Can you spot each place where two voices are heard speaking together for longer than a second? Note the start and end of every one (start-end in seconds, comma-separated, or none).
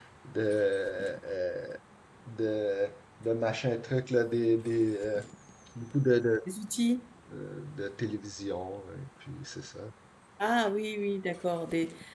none